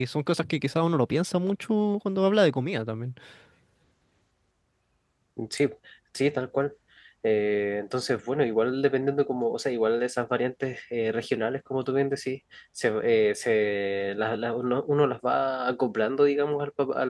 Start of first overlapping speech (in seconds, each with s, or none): none